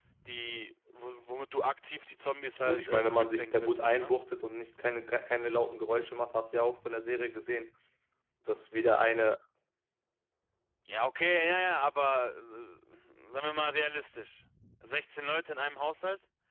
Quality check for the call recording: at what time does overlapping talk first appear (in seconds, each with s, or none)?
2.6 s